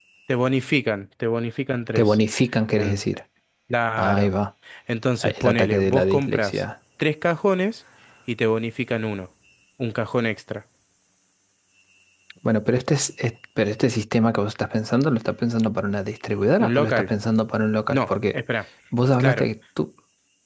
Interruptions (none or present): present